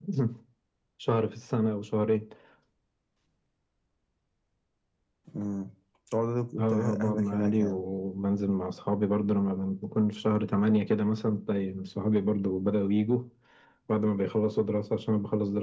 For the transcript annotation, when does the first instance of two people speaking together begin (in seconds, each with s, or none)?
6.6 s